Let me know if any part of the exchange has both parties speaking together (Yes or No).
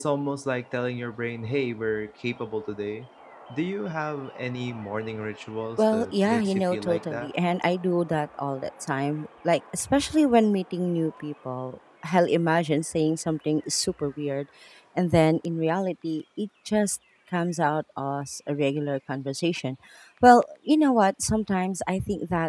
Yes